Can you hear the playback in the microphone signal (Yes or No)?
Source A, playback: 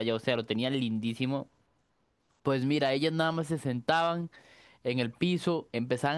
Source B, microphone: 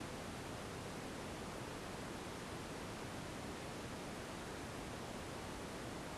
No